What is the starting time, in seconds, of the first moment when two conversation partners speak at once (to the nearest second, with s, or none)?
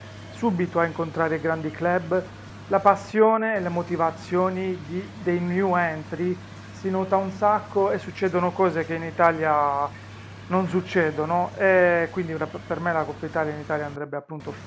none